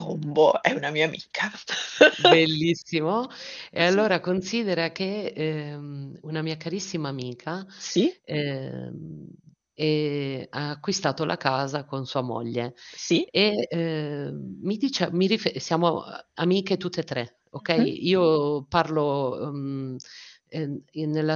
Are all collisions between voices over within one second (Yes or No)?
Yes